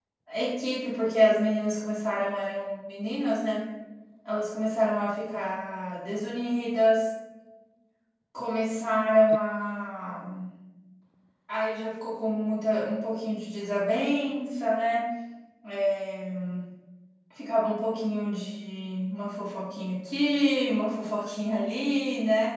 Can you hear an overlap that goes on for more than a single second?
No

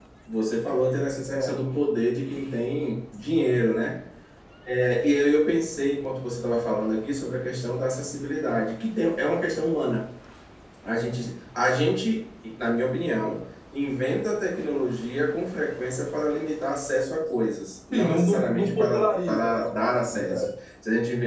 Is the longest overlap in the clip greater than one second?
Yes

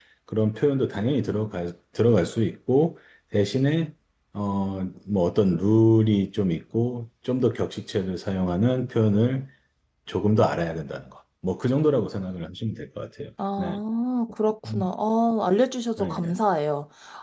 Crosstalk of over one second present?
No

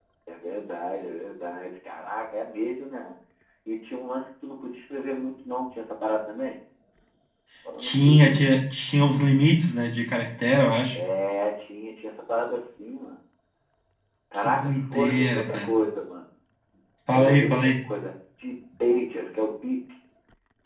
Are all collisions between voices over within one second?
No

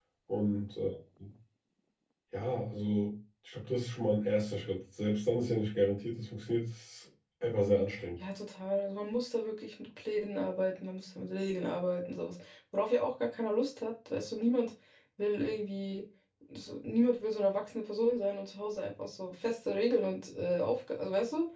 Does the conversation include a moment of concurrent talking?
No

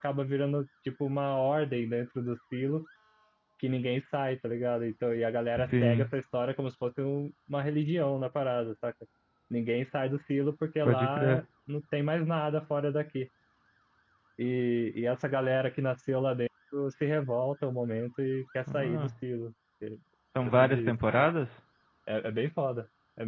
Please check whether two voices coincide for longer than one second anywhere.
No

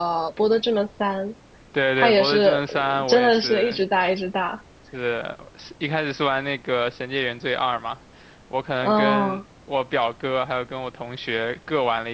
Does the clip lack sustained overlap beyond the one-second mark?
No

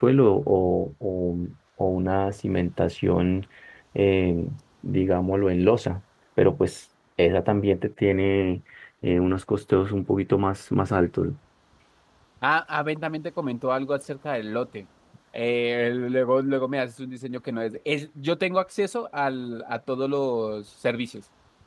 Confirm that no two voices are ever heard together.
Yes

